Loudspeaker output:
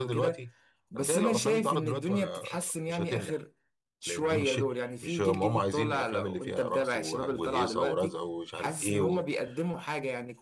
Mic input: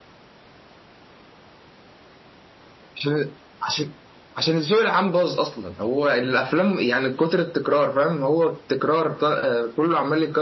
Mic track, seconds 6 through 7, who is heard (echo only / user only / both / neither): user only